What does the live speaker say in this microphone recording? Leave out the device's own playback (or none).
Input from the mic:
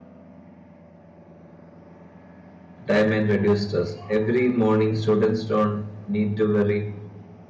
time and reduce stress. Every morning, students don't need to worry